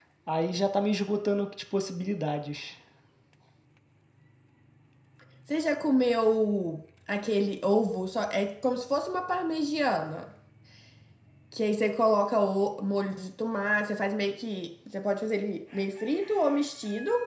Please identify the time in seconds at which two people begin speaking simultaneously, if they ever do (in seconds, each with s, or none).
none